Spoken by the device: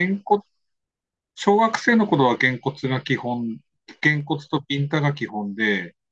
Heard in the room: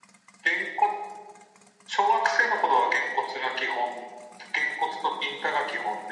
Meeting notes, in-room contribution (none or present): none